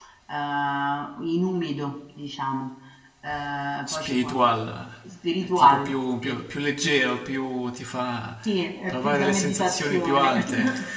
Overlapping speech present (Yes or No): Yes